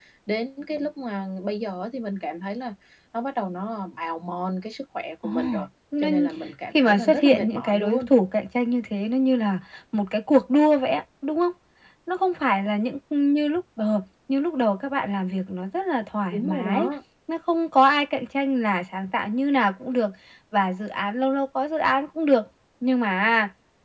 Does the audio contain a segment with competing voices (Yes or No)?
Yes